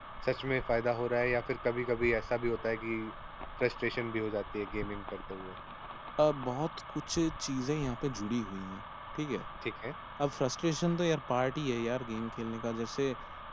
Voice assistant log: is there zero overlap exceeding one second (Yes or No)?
Yes